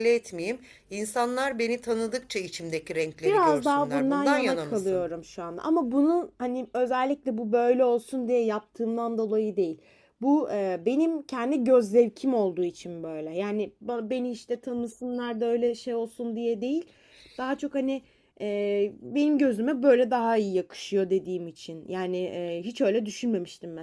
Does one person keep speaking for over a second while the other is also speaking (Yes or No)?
Yes